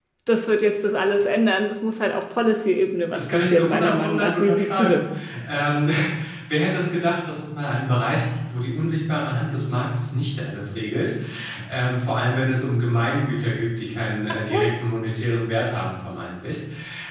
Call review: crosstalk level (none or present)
present